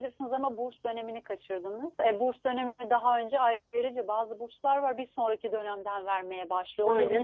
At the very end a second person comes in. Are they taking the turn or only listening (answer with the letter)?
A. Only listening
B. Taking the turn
A